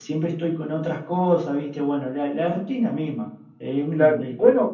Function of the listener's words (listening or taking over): taking over